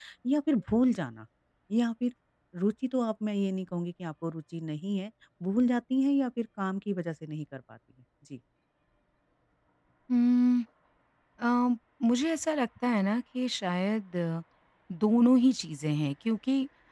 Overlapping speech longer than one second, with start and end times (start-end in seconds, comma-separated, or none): none